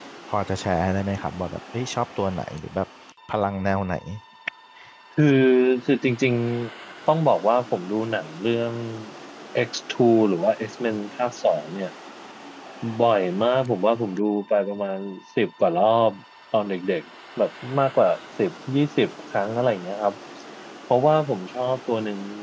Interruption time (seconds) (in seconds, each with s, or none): none